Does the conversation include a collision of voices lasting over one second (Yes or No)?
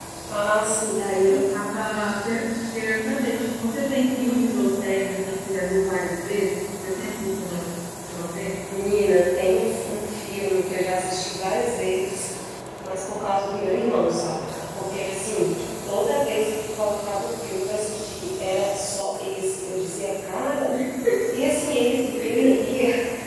No